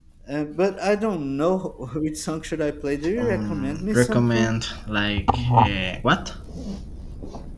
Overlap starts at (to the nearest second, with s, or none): 3 s